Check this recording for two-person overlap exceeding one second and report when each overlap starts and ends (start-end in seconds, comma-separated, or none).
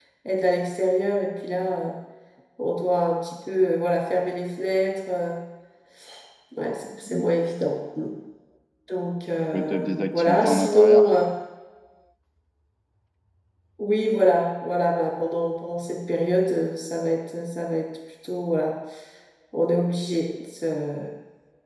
9.5-11.1